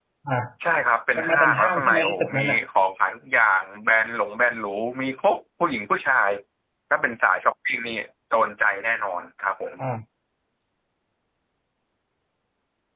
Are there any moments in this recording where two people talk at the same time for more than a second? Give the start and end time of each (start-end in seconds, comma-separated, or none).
1.2-2.6